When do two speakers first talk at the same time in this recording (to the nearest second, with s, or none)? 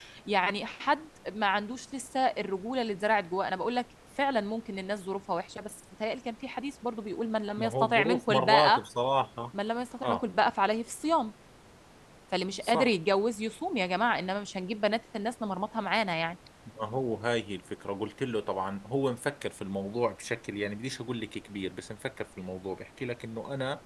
8 s